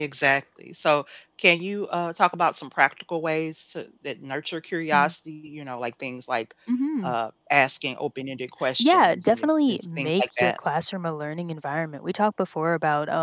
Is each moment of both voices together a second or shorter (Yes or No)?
No